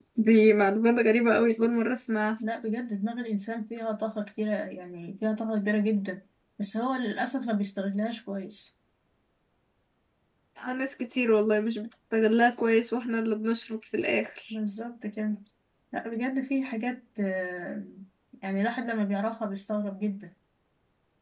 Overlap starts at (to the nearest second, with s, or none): none